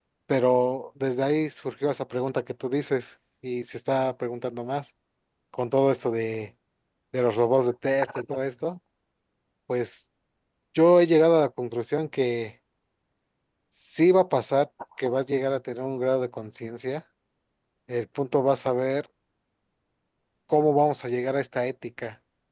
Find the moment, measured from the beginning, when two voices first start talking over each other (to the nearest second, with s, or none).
none